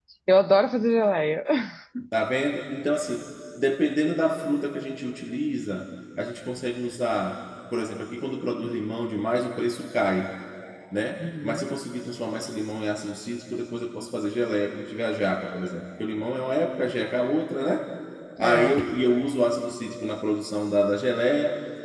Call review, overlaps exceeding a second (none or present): none